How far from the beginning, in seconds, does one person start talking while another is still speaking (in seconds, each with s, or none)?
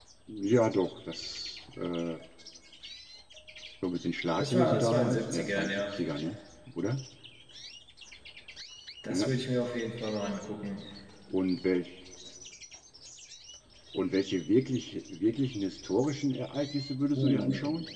4.4 s